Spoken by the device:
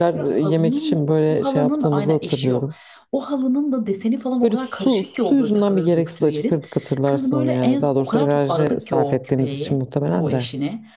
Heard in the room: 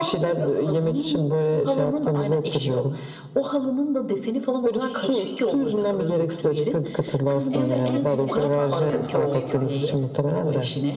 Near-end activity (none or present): present